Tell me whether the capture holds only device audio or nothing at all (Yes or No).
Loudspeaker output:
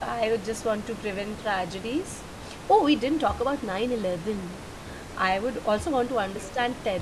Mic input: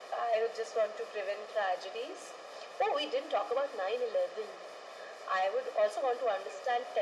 Yes